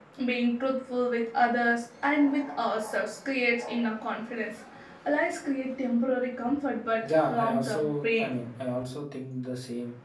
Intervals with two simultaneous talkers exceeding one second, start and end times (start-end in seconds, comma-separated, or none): 7.0-8.4